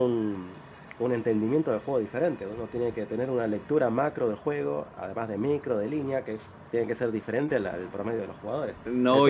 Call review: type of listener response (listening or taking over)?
taking over